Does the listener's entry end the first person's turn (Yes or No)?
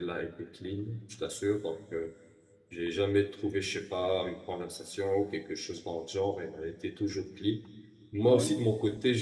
No